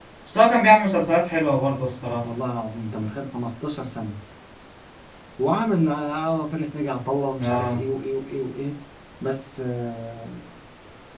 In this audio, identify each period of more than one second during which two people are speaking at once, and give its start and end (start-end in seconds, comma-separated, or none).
none